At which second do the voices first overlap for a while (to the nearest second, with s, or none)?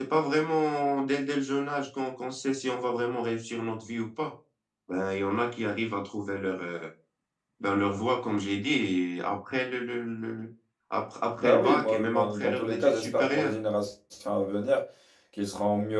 11 s